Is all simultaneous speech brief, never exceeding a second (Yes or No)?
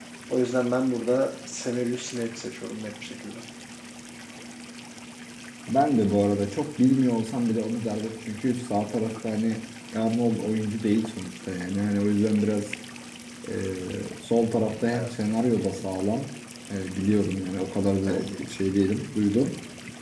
Yes